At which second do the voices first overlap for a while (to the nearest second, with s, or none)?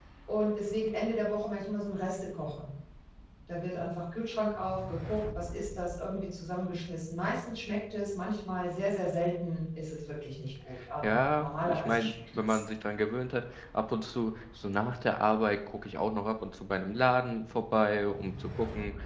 11 s